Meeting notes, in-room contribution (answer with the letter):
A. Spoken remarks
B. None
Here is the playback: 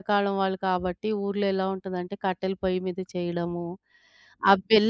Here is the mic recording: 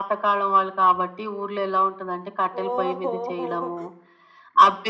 A